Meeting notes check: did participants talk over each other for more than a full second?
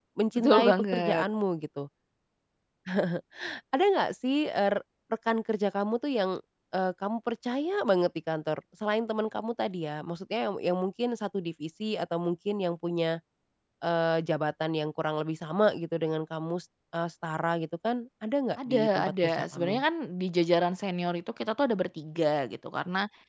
Yes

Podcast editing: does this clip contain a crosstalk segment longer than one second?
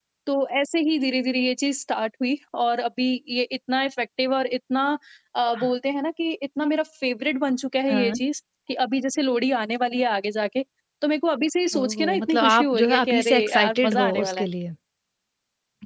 Yes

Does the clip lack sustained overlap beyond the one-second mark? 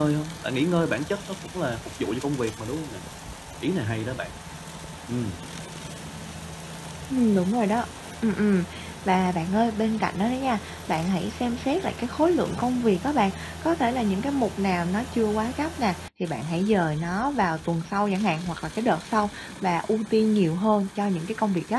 Yes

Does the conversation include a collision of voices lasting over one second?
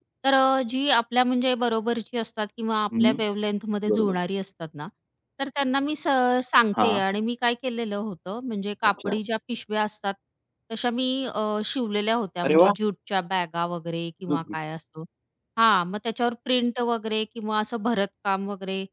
No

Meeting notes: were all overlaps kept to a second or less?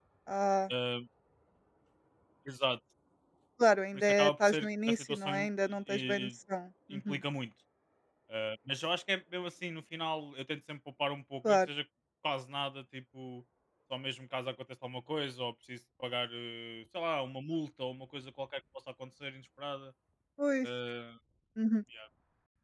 No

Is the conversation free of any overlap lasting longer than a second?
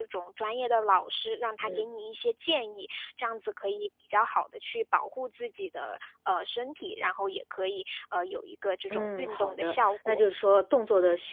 No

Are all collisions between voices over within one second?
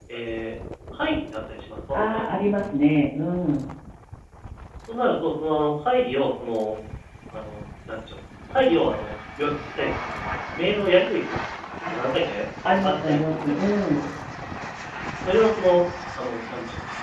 No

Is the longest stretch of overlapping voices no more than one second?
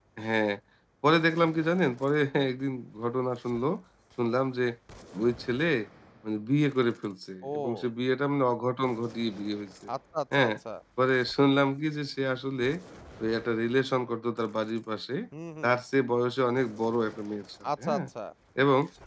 Yes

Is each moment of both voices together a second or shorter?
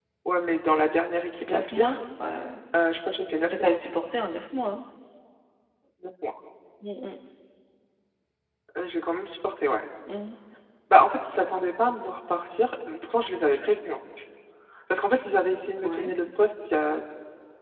Yes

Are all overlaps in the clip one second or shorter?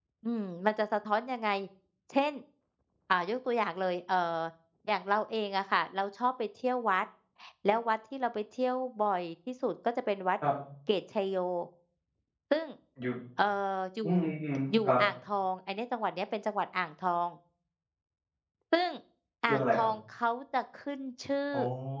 Yes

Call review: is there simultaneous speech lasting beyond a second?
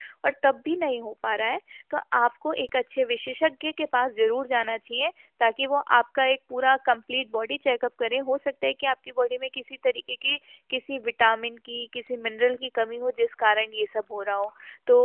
No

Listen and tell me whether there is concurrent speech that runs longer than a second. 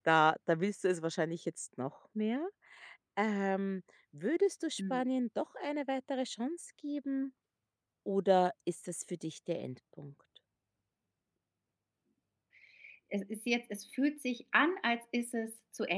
No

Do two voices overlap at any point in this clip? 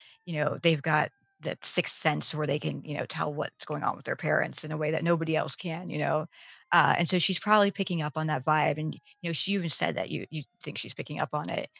No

